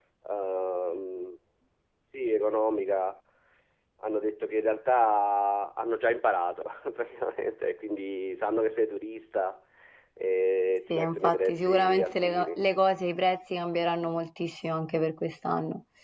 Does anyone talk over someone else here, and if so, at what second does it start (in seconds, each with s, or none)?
10.9 s